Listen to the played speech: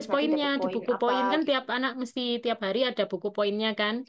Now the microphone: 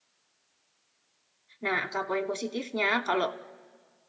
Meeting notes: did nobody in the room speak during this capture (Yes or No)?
No